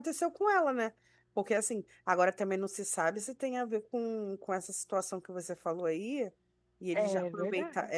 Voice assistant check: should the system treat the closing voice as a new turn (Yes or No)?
No